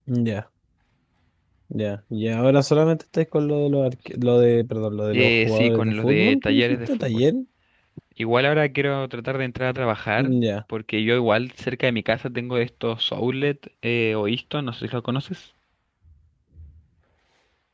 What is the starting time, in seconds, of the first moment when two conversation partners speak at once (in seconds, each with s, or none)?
5.1 s